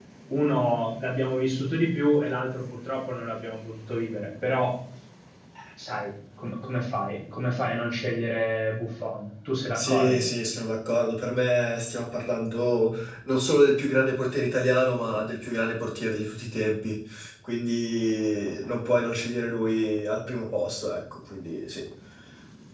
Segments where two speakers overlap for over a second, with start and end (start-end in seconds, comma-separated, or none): none